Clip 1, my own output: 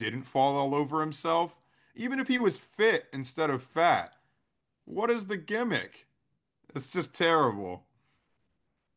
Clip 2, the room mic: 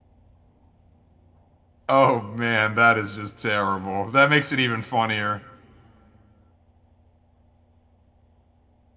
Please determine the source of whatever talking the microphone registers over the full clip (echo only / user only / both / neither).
user only